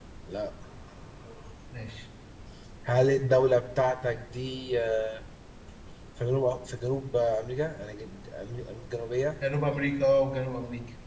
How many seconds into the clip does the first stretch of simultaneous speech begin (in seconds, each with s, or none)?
none